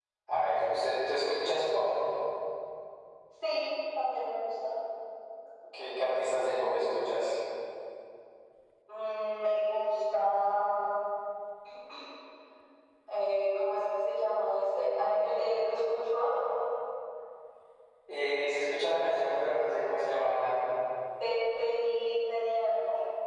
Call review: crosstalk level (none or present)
none